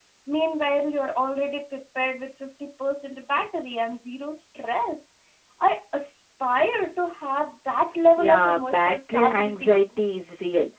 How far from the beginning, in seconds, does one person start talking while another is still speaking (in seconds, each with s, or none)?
8.2 s